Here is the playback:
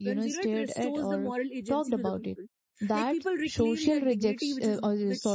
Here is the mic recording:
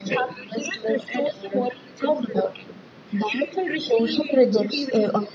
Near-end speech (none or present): none